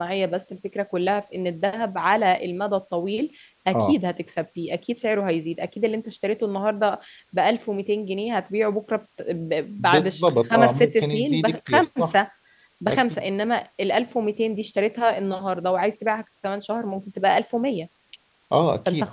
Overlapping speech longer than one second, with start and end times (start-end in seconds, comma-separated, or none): 9.8-12.1